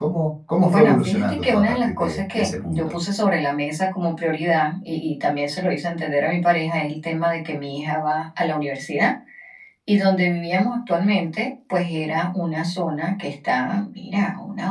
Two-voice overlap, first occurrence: 0.6 s

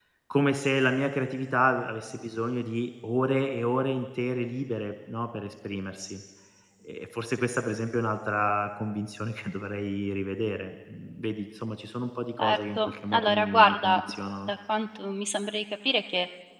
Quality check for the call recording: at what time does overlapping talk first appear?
12.4 s

